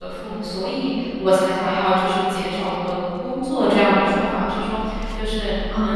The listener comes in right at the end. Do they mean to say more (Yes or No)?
No